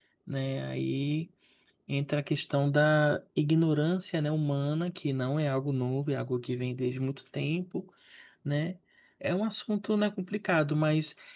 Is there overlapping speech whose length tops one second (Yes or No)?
No